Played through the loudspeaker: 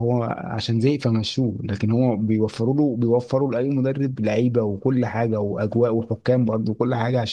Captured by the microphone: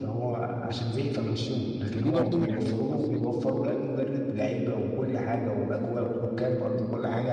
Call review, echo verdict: present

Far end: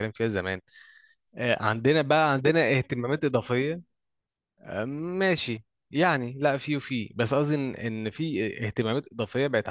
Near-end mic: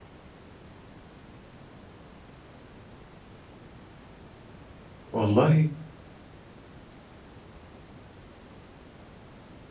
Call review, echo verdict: none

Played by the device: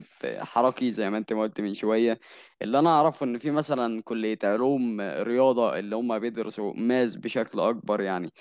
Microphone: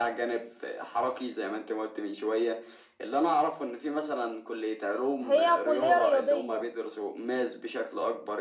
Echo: present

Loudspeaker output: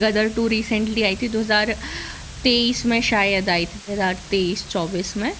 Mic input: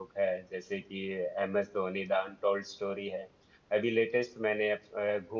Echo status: none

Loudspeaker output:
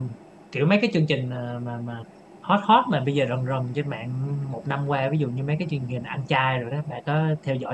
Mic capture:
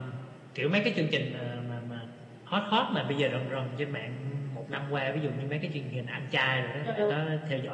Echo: present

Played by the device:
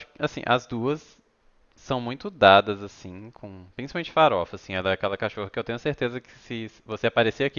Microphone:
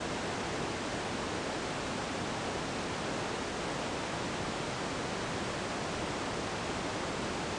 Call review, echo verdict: none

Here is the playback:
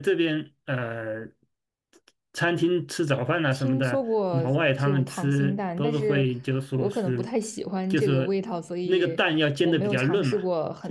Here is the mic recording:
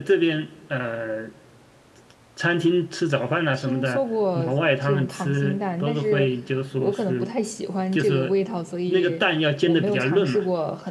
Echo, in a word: present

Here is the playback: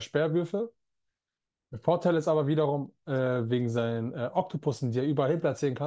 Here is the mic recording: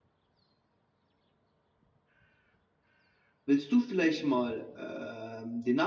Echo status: none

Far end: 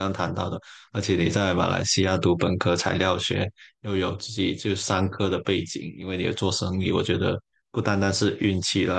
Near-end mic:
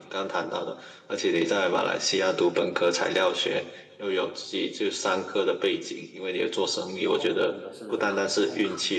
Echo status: present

